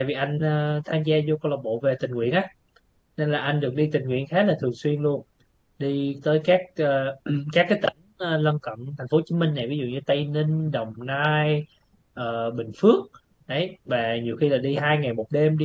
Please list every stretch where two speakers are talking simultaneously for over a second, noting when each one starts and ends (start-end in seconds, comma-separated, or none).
none